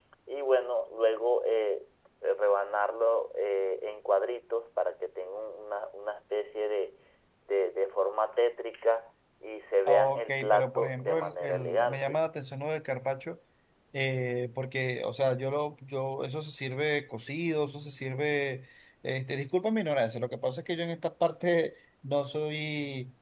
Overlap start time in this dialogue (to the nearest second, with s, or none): 10 s